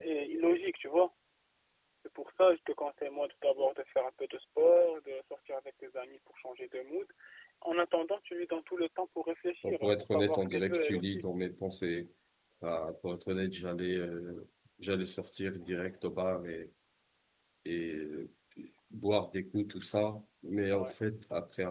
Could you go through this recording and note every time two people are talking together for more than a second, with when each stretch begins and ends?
9.6-11.2

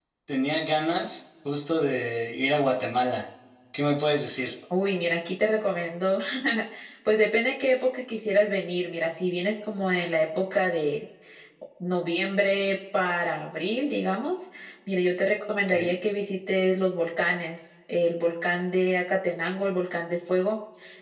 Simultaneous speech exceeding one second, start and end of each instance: none

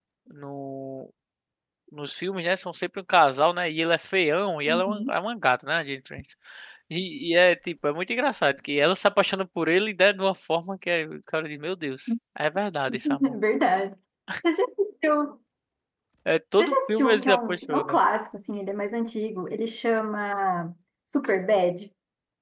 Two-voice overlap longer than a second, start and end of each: 16.6-18.0

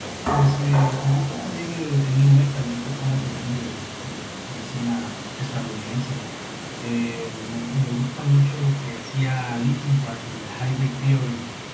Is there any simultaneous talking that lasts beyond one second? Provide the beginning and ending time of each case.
none

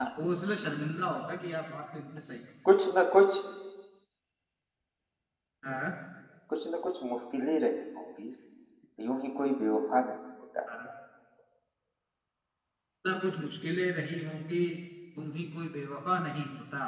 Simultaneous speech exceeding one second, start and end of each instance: none

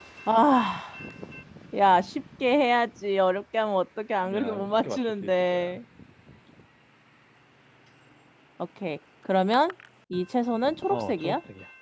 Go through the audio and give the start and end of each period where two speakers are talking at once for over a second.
4.2-5.8

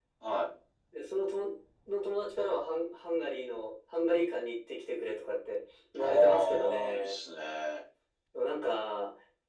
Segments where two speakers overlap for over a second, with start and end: 6.0-7.2

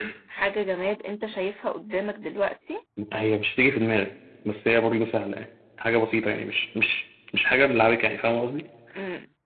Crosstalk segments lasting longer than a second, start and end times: none

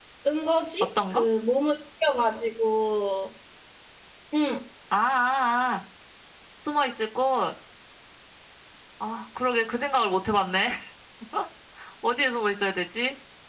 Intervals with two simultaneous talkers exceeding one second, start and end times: none

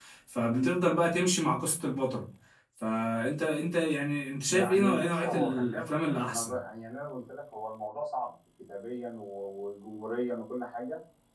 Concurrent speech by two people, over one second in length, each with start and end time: 4.5-6.6

